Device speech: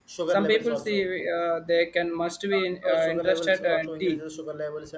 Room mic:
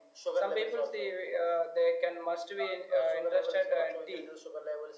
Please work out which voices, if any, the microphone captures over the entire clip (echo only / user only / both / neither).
echo only